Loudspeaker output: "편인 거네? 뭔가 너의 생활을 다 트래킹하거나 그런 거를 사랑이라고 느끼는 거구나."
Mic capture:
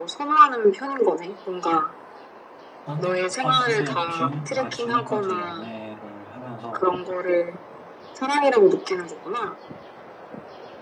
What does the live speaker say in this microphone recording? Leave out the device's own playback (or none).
아니, 아니 근데 지금 그러니까 지금까지 연애를 하면서